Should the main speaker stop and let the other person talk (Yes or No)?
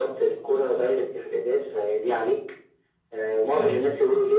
No